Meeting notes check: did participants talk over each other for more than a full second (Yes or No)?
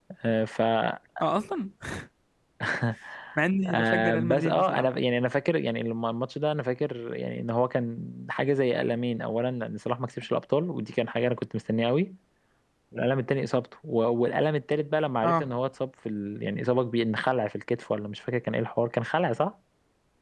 Yes